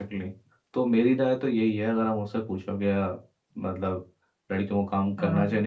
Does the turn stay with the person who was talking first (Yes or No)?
Yes